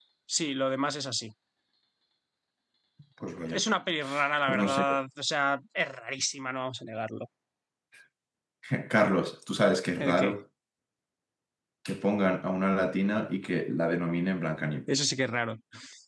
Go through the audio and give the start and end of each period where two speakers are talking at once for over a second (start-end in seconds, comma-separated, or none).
none